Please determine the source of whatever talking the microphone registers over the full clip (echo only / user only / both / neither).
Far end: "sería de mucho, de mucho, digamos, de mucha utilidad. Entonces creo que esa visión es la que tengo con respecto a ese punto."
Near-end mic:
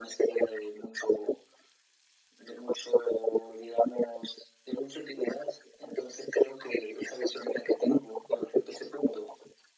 echo only